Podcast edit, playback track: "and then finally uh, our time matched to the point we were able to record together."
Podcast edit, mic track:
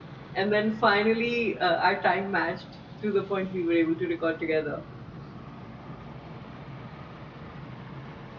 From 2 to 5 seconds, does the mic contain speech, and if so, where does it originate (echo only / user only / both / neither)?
echo only